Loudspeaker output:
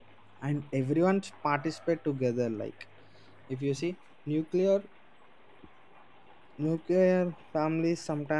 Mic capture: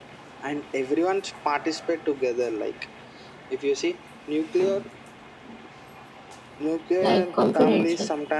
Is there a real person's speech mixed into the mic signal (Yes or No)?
Yes